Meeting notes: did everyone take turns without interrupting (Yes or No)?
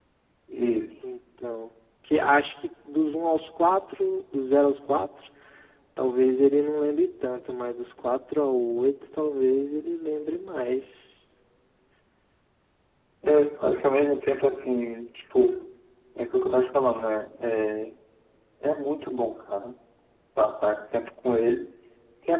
Yes